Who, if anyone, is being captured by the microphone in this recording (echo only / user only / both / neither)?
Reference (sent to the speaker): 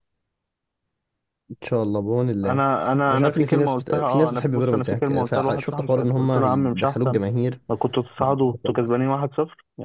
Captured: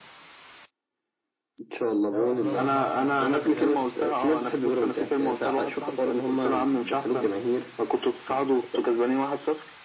both